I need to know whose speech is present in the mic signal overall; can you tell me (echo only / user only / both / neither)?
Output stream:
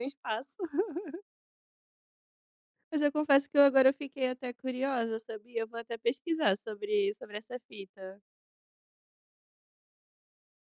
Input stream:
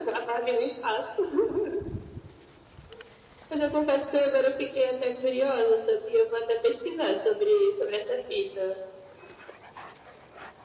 echo only